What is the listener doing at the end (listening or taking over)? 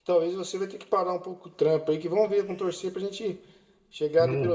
listening